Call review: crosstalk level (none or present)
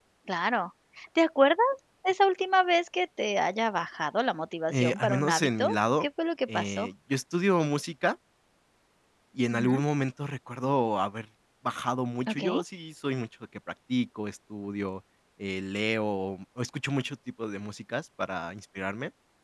present